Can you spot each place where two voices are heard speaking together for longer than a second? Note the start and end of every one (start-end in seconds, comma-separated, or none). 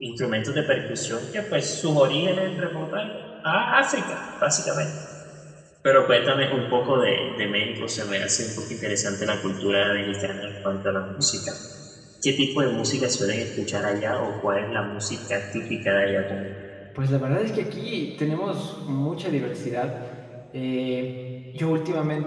none